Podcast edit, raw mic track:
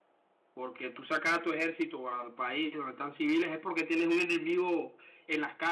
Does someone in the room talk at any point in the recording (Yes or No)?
Yes